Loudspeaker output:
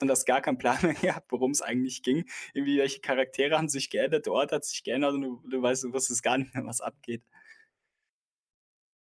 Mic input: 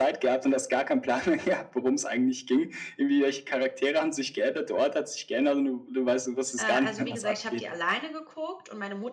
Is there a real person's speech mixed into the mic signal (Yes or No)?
Yes